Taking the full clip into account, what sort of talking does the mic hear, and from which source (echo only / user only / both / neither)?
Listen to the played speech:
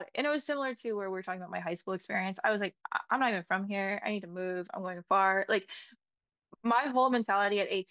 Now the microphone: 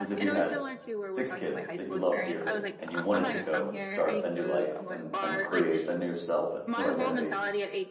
both